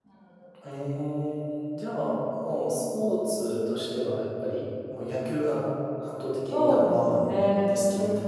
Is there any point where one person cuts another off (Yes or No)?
Yes